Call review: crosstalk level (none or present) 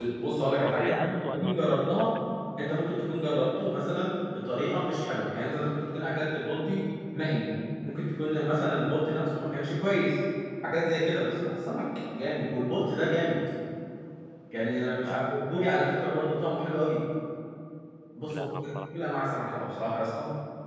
present